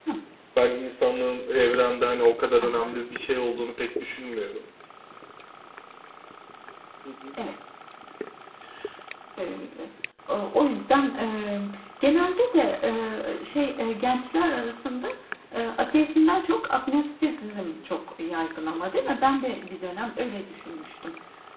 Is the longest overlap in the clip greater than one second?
No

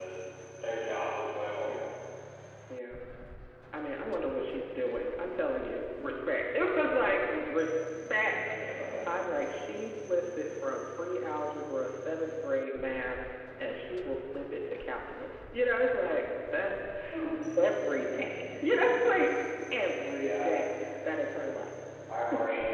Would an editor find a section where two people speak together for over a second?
No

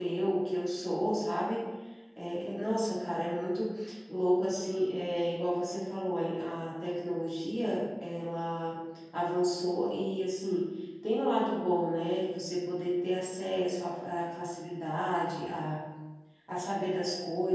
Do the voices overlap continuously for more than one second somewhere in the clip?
No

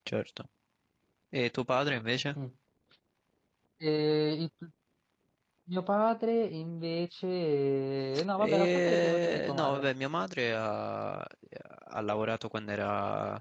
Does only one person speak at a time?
No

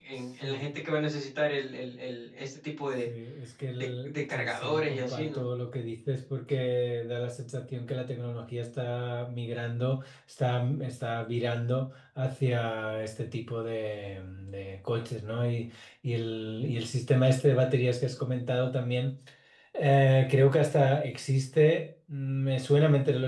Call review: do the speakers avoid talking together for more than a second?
No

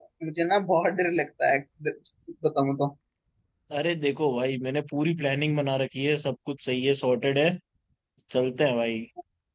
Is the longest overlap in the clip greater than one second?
No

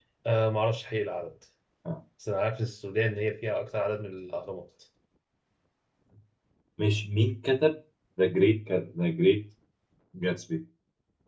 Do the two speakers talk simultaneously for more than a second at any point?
No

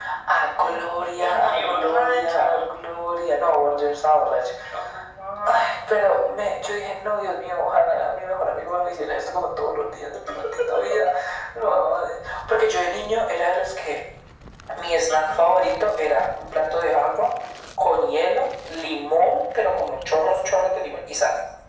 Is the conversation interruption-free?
No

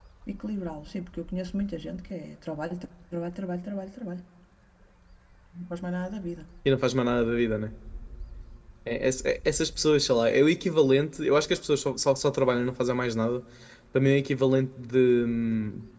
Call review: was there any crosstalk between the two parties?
No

